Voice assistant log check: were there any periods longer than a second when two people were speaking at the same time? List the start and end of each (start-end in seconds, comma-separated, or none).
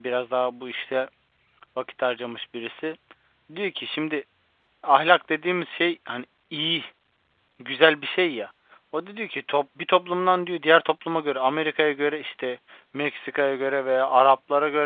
none